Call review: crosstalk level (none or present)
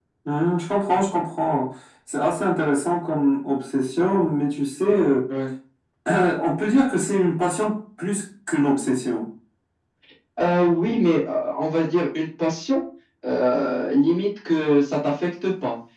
none